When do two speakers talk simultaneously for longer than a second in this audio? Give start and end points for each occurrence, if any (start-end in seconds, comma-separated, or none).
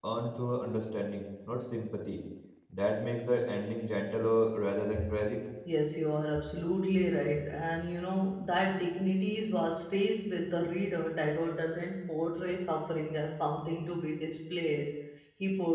none